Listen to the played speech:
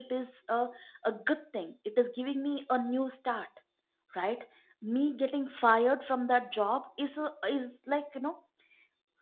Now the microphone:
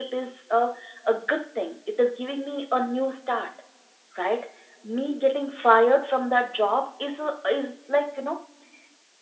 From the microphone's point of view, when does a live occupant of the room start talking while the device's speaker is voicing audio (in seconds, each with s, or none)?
none